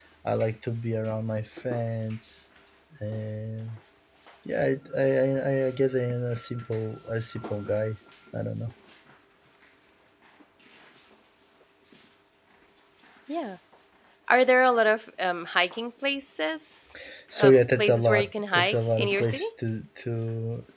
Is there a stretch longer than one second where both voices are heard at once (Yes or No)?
Yes